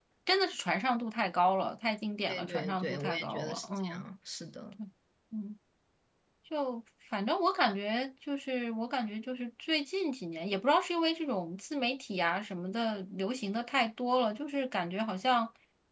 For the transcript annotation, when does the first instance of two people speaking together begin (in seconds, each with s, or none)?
2.3 s